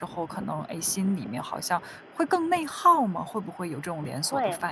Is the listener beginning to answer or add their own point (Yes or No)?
Yes